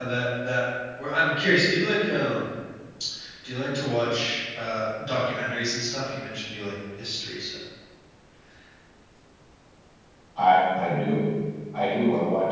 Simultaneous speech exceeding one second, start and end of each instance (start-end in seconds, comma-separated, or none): none